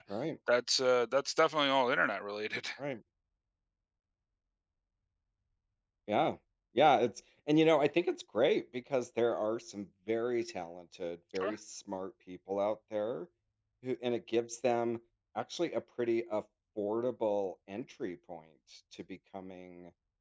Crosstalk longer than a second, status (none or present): none